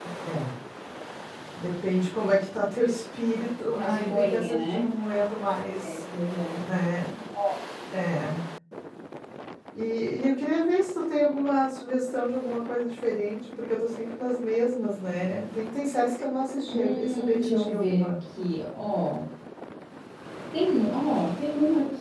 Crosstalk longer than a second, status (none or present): present